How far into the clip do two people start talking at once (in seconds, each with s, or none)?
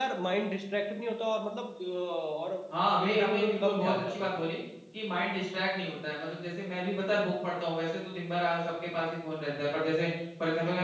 3.0 s